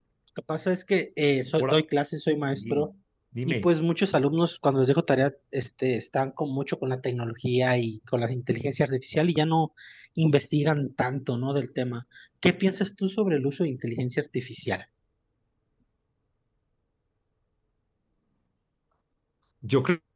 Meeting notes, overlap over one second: none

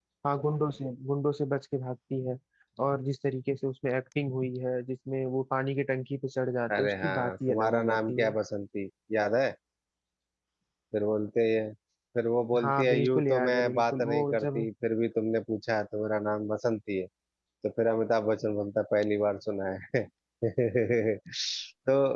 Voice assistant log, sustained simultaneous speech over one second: present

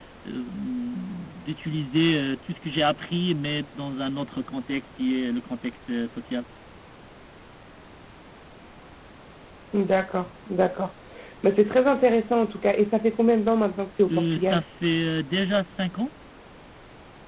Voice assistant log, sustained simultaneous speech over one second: none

